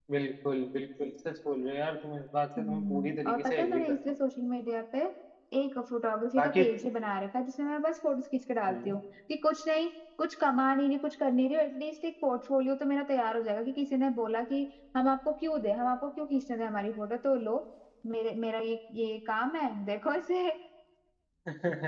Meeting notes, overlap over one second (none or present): present